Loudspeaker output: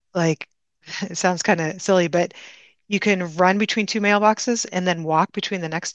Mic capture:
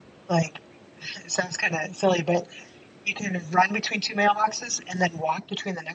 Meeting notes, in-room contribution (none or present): none